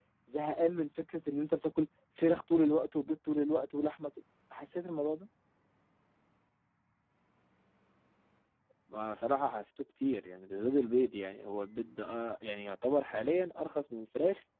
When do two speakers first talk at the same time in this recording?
none

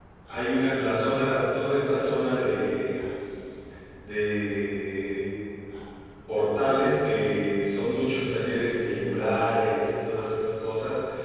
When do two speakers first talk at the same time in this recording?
none

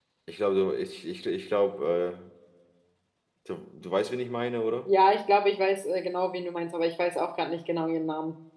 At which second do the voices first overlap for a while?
none

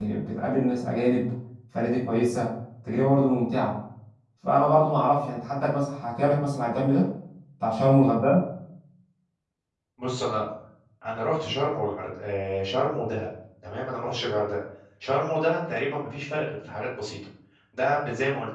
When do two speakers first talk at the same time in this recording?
none

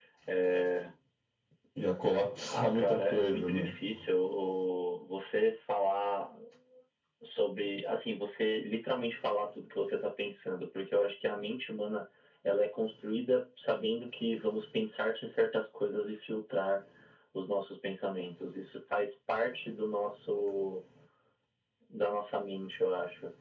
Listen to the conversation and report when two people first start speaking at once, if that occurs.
3 s

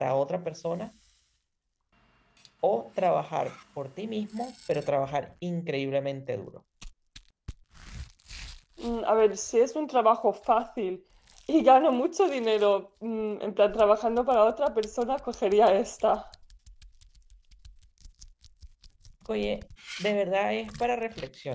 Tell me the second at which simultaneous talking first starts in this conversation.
none

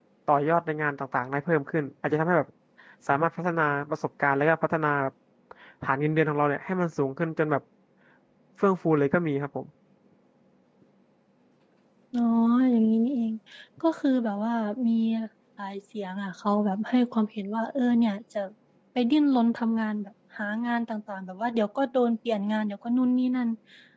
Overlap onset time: none

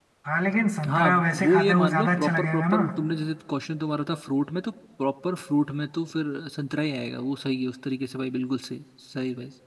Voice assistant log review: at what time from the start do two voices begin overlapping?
1 s

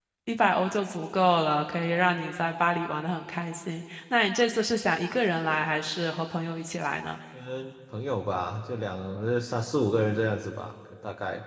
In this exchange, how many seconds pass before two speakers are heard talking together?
none

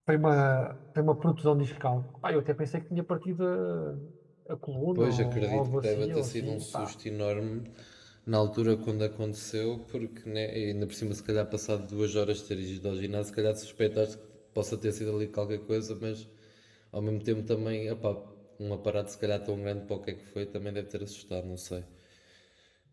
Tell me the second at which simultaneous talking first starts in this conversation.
5 s

